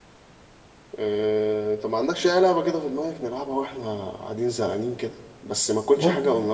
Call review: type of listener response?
listening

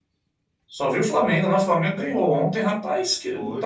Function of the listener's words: listening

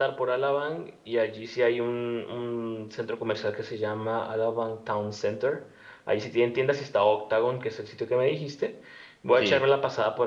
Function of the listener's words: listening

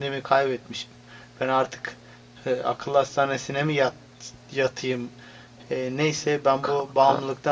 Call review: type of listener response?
listening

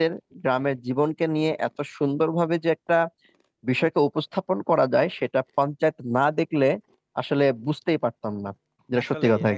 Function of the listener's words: taking over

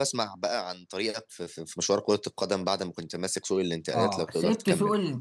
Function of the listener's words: taking over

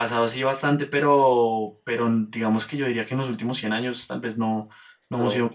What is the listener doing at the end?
listening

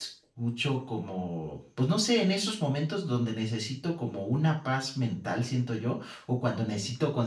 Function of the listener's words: listening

